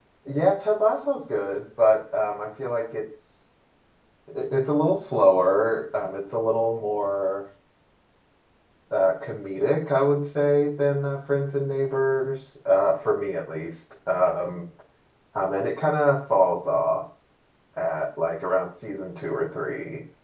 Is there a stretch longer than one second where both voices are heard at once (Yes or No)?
No